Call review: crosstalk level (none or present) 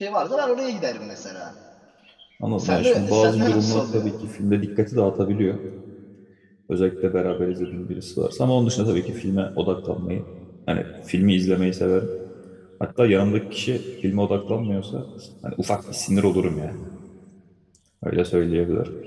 present